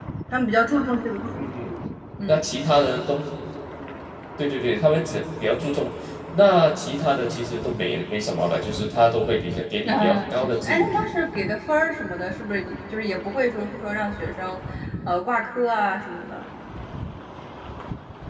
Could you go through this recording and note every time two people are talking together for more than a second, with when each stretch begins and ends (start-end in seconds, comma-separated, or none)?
9.9-11.1